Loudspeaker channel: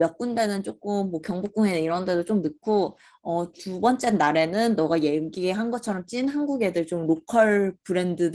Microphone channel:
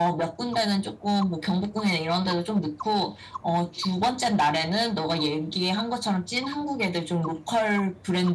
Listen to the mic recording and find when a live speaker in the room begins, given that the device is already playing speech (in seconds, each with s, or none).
none